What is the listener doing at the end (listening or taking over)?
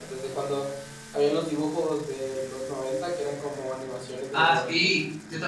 taking over